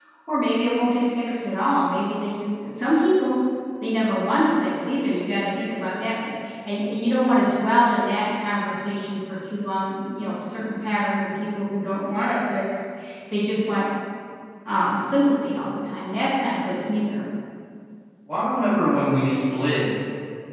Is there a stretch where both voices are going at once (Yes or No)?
No